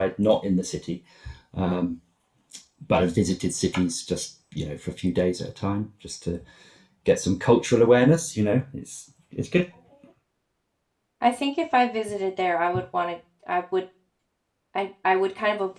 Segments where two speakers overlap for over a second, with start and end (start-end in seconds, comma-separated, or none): none